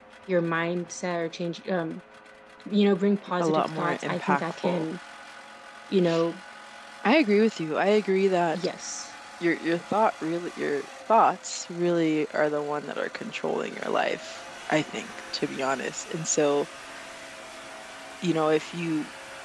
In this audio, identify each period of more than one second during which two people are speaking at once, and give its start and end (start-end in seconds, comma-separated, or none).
3.4-4.9